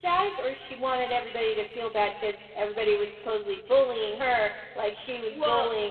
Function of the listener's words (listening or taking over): taking over